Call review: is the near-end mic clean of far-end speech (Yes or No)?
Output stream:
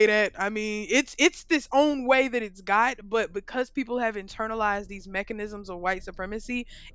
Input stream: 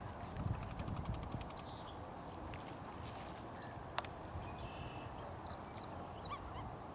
Yes